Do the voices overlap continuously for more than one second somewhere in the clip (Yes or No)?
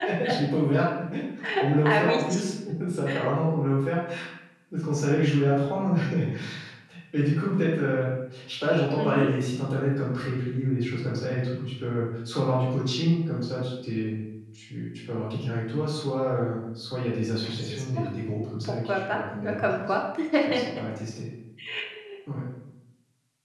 Yes